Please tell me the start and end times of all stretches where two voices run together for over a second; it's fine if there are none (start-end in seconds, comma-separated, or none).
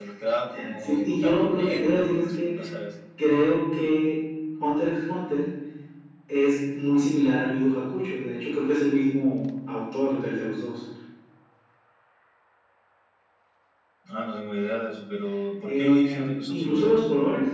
0.8-2.5, 15.6-16.9